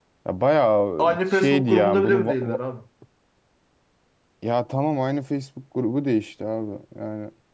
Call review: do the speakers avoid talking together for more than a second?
No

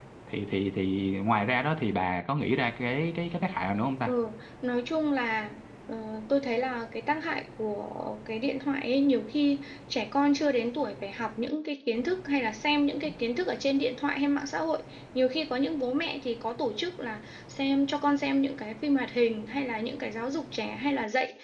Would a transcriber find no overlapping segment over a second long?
Yes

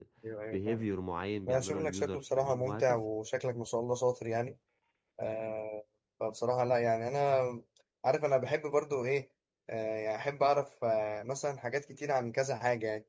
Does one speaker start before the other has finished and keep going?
Yes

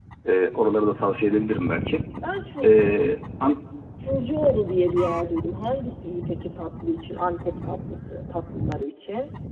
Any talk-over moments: No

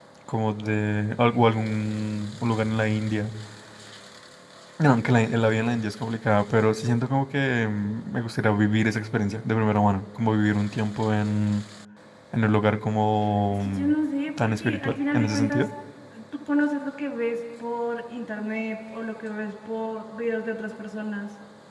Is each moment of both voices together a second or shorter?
No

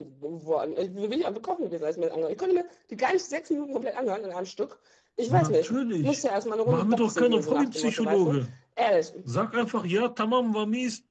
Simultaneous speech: Yes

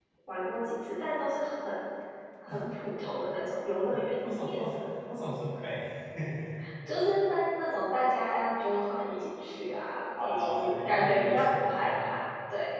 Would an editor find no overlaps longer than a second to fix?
No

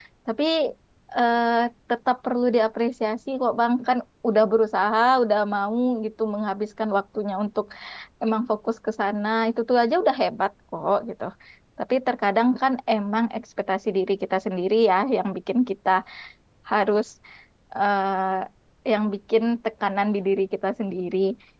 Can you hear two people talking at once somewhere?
No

